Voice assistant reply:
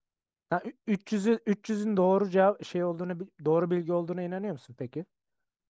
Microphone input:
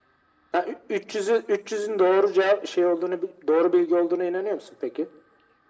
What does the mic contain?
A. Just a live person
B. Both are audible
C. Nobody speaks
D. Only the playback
D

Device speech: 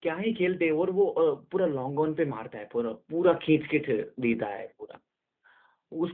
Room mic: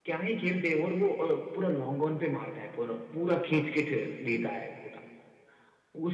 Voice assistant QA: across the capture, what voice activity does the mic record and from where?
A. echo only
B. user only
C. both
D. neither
A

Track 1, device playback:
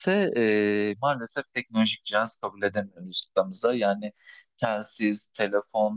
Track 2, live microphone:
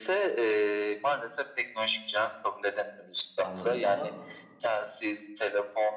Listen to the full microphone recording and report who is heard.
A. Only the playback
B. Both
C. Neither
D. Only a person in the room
B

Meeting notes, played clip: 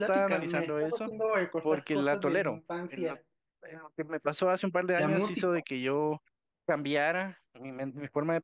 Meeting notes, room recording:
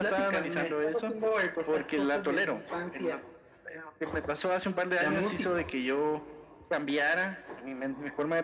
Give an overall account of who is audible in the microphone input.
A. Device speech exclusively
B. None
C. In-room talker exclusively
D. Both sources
A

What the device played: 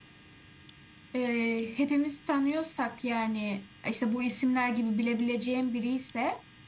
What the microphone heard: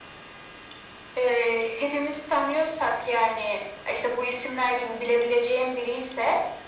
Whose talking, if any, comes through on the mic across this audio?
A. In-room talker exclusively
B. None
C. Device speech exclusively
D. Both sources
C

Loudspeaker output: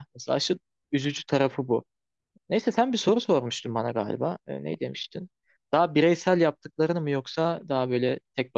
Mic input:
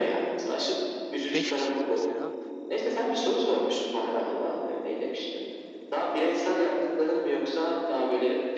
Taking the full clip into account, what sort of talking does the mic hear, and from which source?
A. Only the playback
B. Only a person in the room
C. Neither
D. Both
D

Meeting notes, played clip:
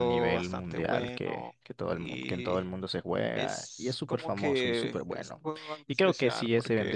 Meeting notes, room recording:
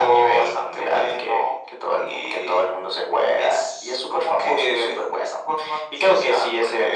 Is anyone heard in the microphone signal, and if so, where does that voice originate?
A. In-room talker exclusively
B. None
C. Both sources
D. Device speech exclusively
D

